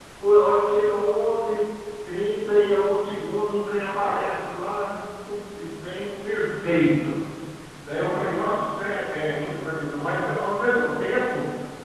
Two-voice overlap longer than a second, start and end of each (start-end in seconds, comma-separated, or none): none